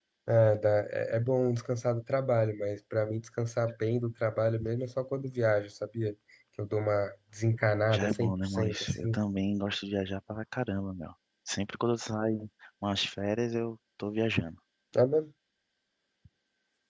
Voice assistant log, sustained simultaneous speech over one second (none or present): present